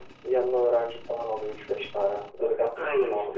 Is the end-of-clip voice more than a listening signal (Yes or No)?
Yes